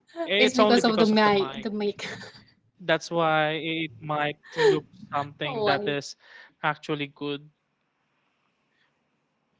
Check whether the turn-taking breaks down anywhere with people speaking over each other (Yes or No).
Yes